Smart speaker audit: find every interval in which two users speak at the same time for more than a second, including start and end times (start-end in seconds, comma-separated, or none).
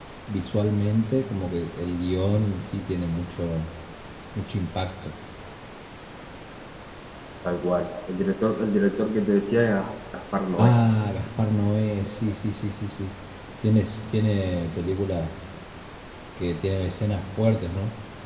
none